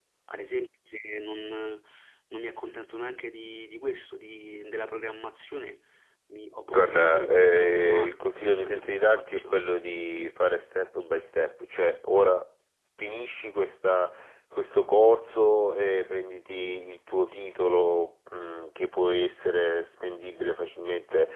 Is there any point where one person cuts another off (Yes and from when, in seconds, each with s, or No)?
Yes, from 6.7 s